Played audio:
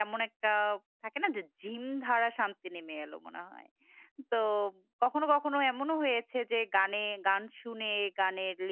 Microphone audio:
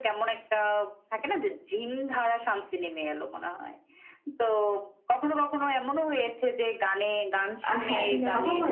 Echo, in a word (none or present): present